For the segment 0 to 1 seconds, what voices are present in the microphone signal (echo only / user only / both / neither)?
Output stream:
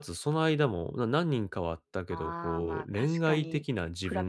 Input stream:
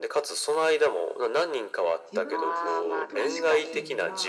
echo only